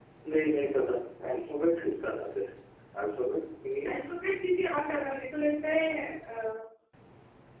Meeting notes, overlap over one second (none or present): none